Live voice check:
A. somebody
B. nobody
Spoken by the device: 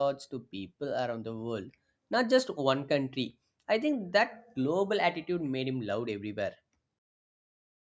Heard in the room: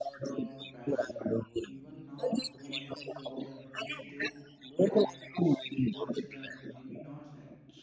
A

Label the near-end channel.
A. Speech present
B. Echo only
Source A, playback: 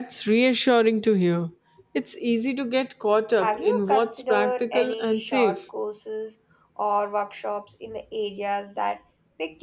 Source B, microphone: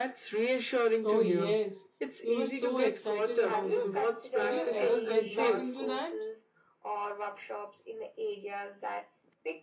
A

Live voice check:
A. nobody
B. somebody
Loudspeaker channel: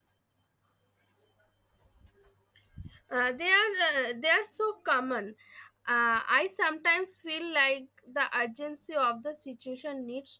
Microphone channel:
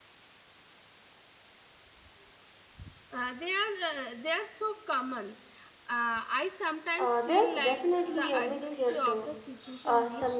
B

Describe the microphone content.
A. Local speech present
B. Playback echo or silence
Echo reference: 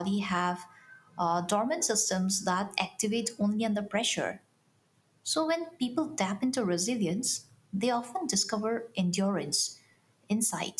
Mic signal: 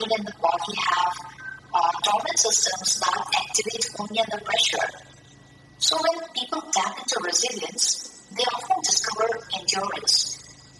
B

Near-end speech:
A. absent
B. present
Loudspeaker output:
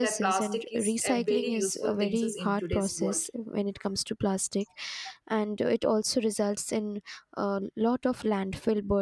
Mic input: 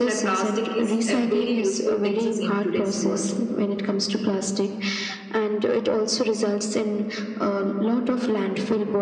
A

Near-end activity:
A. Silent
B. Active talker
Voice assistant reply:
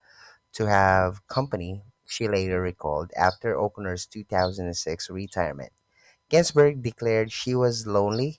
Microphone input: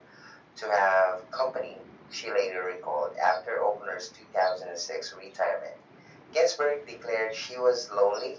A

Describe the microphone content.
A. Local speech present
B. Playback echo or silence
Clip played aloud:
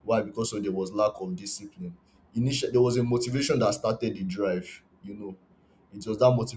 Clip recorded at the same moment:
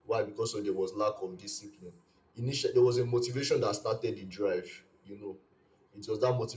B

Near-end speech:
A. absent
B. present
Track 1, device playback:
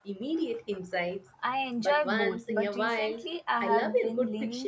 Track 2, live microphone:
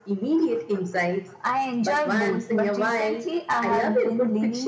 A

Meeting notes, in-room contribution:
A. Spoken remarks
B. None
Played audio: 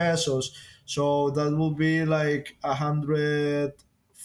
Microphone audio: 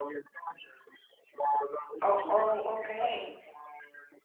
A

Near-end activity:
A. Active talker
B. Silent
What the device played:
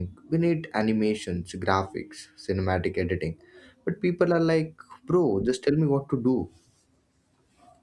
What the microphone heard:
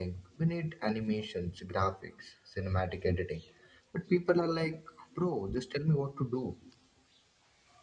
B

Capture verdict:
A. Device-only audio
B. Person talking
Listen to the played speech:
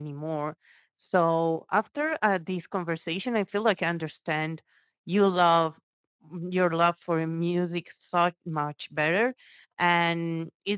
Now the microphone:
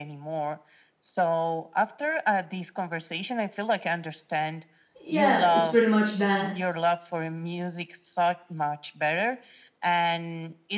B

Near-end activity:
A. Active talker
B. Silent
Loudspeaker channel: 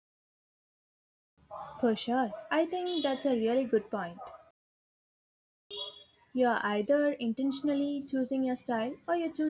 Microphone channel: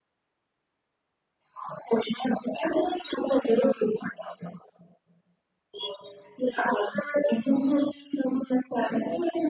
B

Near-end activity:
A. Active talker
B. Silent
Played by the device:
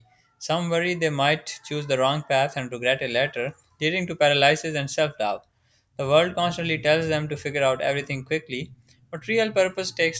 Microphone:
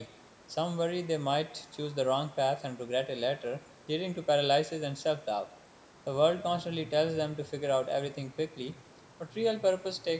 B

